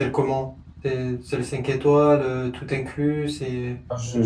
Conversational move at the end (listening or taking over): taking over